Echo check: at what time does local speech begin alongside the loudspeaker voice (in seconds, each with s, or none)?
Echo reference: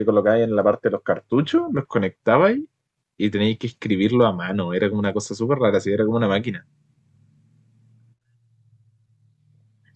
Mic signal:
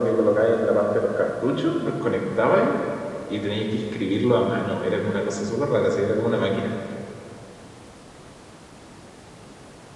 none